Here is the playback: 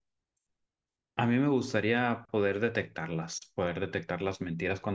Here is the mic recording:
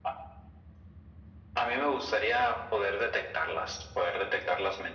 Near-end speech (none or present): none